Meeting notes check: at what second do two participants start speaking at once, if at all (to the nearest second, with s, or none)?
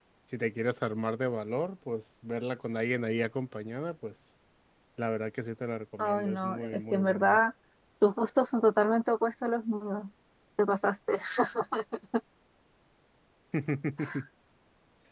6 s